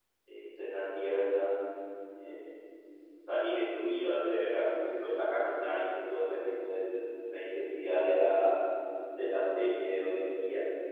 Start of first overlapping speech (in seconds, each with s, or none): none